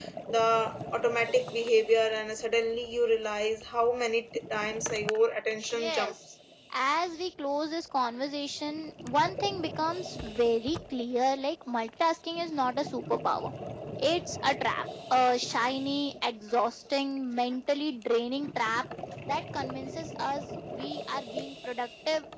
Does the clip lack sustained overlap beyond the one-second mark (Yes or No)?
Yes